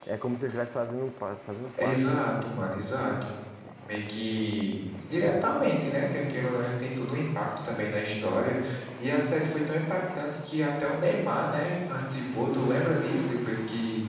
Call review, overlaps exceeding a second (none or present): none